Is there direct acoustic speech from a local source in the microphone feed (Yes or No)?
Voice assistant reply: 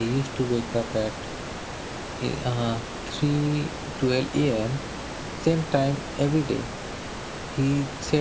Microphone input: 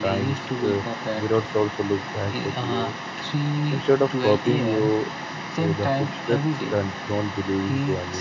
Yes